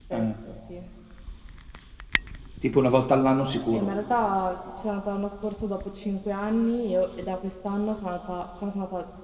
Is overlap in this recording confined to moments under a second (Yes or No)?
Yes